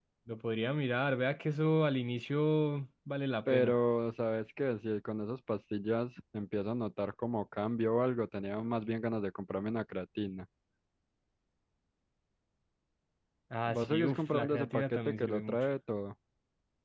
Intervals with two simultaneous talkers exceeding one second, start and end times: 13.7-15.7

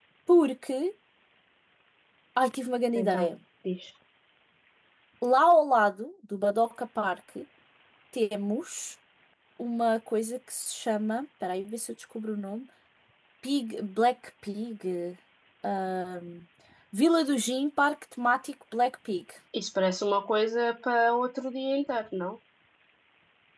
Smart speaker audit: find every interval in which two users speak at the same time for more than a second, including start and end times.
none

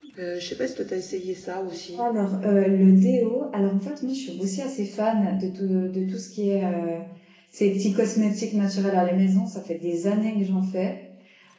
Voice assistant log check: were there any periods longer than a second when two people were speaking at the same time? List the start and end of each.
none

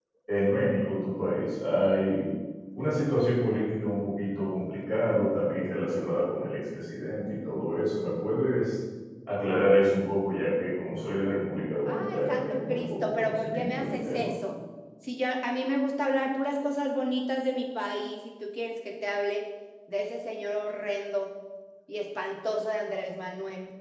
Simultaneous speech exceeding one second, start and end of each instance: 11.8-14.3

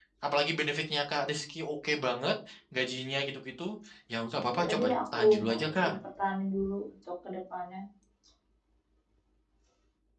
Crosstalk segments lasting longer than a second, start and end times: 4.5-5.9

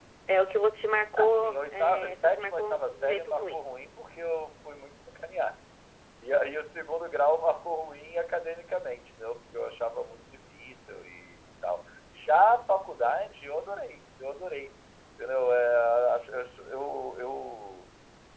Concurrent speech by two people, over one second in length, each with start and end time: 1.2-3.6

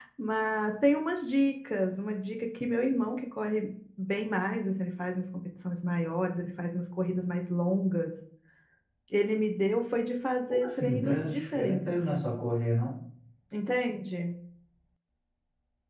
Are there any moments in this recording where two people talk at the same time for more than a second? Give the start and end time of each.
10.5-12.1

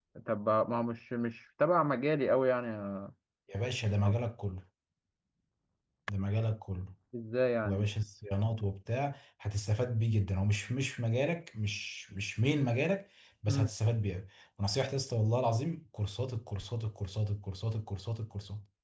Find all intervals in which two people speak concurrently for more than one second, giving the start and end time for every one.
none

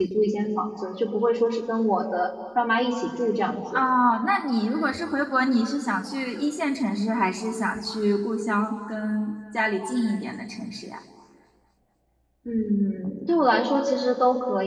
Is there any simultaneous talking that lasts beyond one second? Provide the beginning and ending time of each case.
none

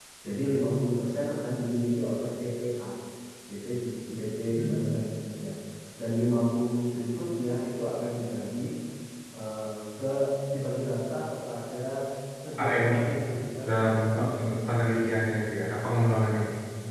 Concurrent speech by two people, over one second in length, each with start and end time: 13.7-15.1

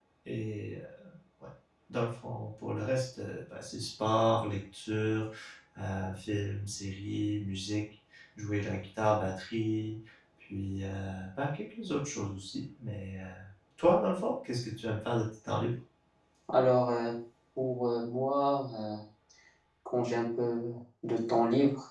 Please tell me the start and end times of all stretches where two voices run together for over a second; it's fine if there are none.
none

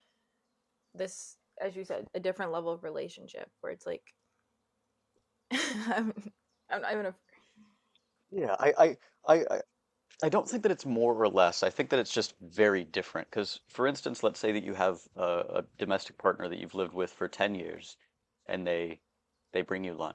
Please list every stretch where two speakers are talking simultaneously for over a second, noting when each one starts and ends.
none

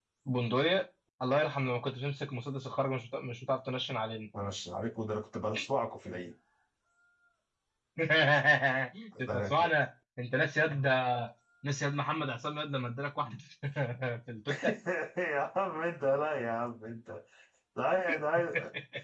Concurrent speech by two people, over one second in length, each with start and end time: none

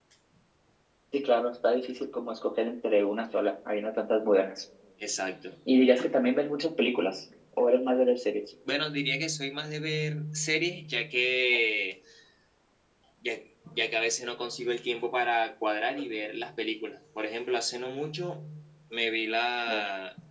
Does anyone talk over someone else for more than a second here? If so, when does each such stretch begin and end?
none

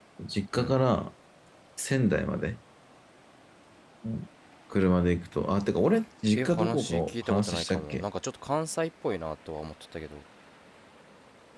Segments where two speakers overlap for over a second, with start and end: 6.3-8.0

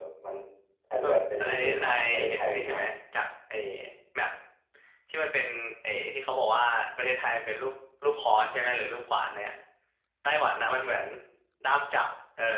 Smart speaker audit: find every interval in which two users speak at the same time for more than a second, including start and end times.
1.5-2.8

